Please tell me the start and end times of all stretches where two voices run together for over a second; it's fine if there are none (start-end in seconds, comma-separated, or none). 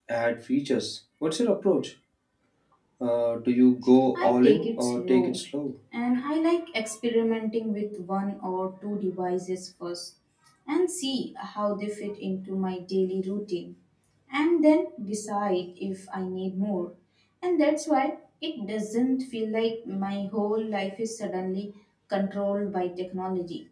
4.2-5.4